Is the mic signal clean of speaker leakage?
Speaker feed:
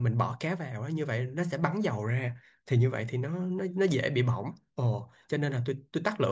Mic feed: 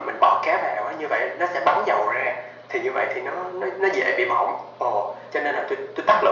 No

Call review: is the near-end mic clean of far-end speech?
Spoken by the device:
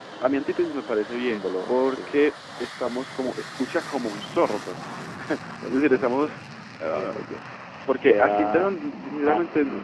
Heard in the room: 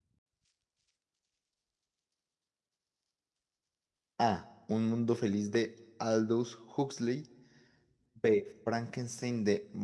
Yes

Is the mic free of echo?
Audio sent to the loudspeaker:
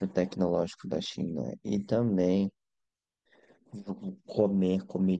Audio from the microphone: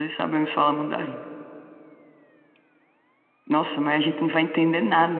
Yes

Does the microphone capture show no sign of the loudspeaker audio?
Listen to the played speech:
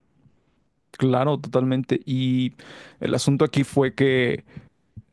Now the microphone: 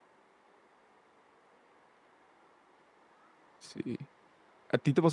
Yes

